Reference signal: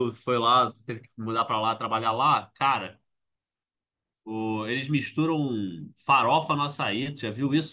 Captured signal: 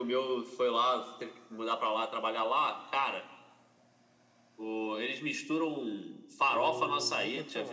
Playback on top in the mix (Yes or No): Yes